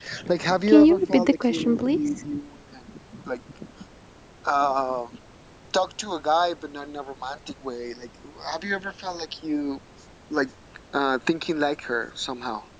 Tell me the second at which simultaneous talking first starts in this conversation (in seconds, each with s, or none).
0.7 s